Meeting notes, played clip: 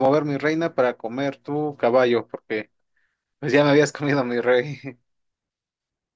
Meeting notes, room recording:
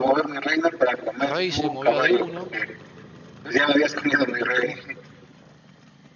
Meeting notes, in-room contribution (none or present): present